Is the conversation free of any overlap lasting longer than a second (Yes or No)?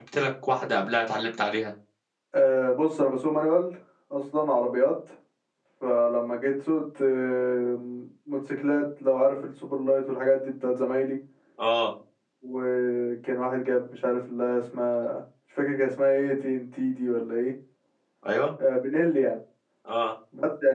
Yes